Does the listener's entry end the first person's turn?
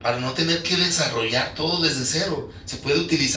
No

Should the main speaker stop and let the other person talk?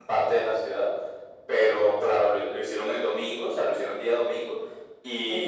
No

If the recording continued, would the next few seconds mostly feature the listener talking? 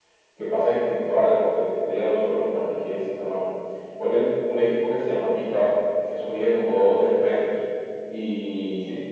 No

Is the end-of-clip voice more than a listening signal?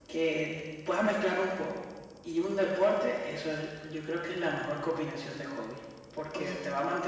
No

